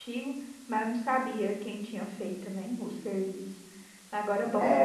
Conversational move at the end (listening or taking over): taking over